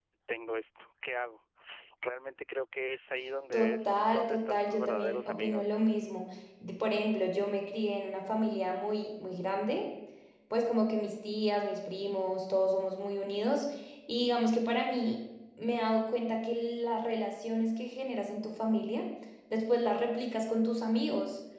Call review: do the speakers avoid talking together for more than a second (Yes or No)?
No